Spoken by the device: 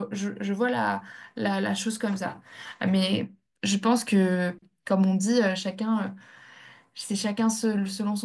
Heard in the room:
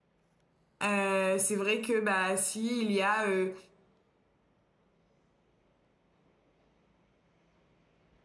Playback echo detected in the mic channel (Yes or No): No